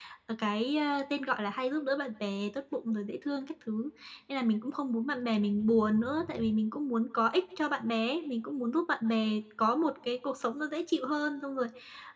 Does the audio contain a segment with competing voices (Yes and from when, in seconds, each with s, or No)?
No